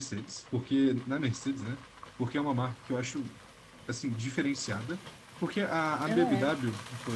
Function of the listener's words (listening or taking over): listening